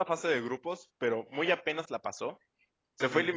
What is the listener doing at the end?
listening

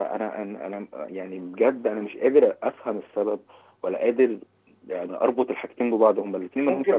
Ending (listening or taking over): taking over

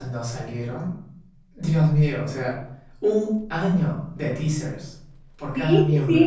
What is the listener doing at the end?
taking over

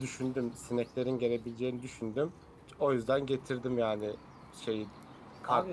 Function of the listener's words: taking over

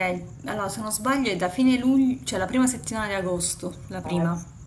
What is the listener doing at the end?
taking over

